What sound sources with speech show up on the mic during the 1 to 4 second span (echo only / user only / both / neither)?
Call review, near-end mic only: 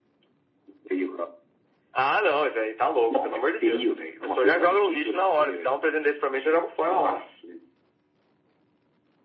echo only